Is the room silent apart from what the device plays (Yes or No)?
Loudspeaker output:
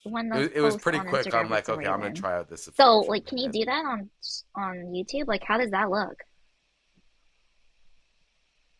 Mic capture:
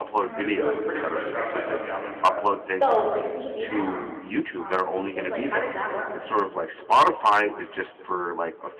No